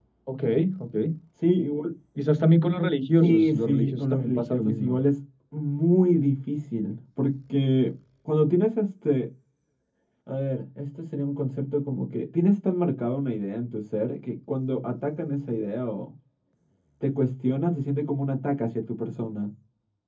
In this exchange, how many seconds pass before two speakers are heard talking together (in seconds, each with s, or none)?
3.2 s